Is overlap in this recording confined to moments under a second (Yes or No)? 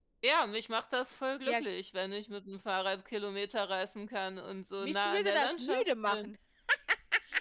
No